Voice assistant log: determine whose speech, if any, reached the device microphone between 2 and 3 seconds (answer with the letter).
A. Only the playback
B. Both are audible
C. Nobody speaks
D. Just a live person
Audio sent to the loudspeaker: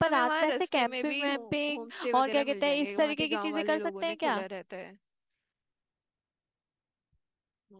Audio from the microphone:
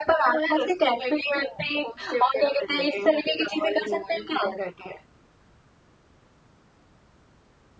A